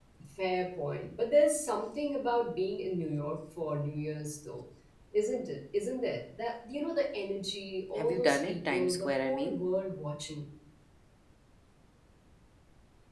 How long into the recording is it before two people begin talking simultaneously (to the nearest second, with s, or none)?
8 s